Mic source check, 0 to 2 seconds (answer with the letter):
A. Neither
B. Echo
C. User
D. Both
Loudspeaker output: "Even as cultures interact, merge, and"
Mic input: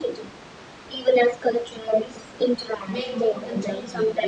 B